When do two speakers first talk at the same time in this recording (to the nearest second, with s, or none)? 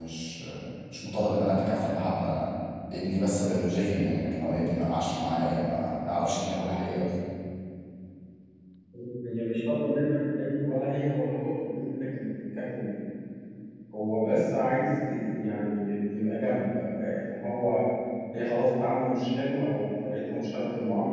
none